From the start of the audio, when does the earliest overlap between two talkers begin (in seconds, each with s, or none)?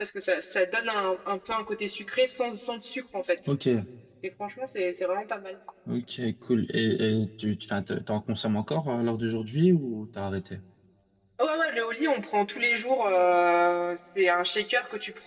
none